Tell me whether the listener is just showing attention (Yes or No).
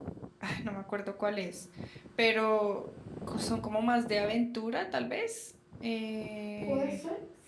No